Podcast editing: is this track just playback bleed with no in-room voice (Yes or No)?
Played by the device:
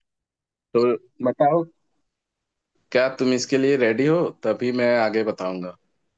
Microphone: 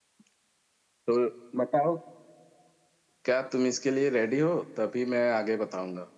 Yes